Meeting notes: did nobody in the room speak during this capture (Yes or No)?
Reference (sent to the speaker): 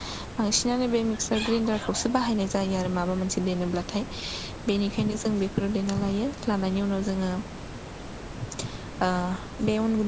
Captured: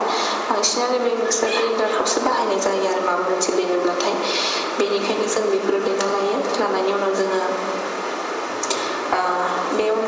Yes